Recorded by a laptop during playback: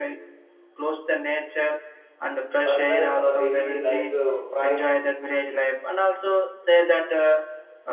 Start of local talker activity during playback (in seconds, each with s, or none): 2.6 s